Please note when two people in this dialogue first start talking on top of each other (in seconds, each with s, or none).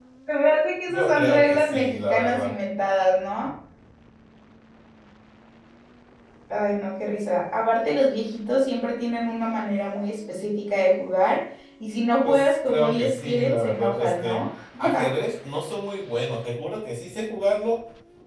0.9 s